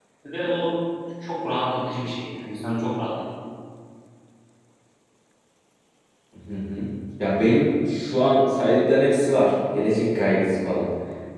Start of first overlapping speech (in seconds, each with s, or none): none